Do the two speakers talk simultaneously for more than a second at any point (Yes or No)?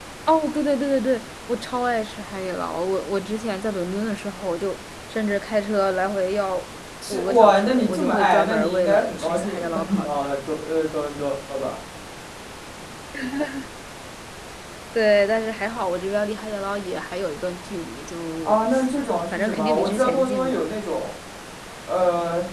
Yes